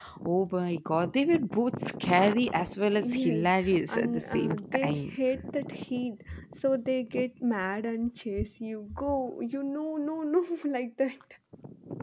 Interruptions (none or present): present